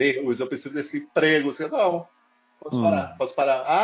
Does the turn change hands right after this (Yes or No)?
No